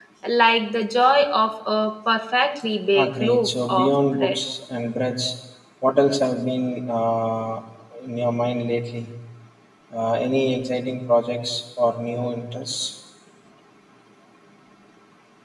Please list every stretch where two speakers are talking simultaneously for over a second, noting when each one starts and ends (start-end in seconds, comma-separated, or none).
2.9-4.4